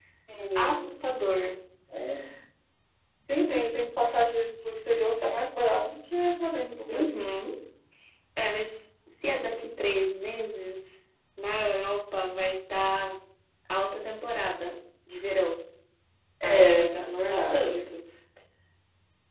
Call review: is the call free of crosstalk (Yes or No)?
No